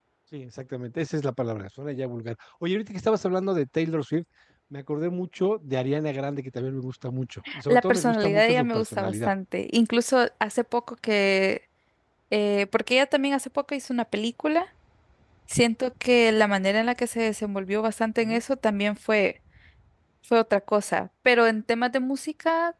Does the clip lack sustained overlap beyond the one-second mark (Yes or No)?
No